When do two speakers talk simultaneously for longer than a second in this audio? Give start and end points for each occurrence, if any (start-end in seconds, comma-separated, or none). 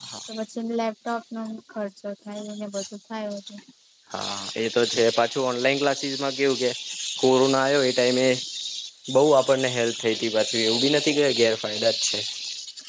none